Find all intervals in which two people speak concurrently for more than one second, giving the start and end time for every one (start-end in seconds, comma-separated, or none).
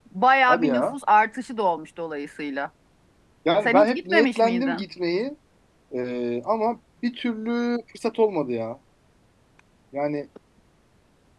3.6-4.8